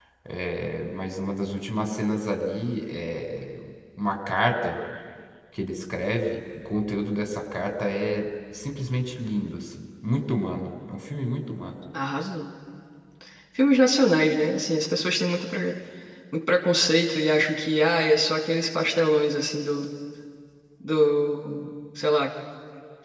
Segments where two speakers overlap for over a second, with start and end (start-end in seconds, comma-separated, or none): none